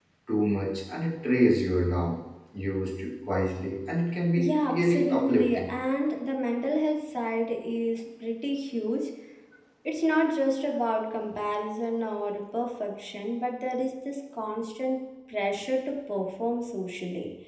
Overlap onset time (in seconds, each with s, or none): 4.4 s